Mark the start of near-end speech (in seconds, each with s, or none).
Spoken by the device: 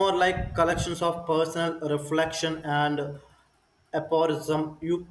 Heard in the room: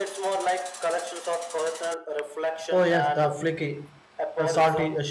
2.7 s